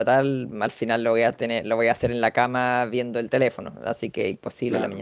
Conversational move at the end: taking over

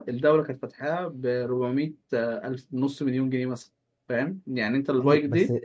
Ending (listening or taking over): taking over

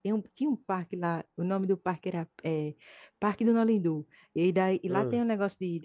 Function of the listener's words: listening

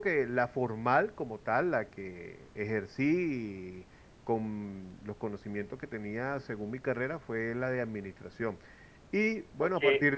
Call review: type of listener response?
listening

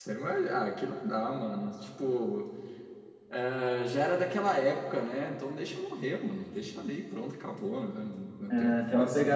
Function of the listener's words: taking over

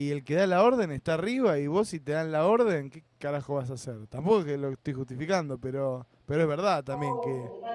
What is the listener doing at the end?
taking over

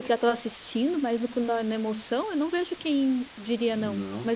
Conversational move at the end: taking over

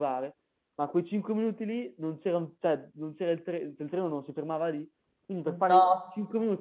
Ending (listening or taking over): listening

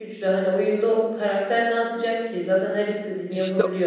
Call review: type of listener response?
taking over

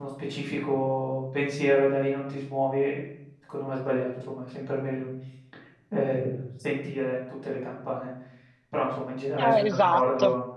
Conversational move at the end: listening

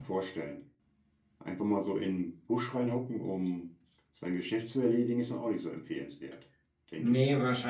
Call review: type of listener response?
taking over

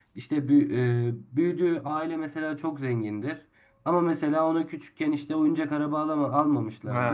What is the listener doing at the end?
listening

